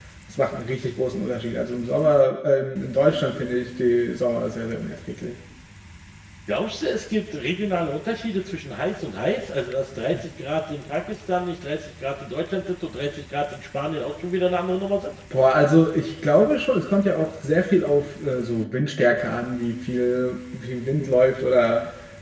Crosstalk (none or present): none